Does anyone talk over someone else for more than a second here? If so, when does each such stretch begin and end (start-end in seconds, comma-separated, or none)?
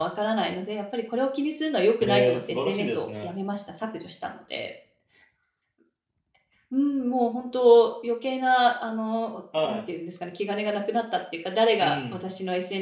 2.0-3.3